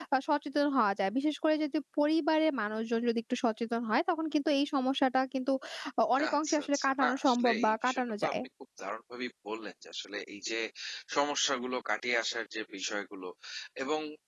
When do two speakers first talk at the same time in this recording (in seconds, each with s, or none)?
6.4 s